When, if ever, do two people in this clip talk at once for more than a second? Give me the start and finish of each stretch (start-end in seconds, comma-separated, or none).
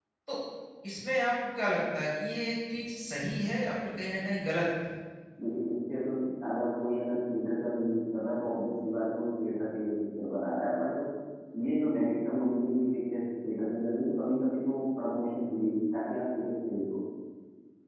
none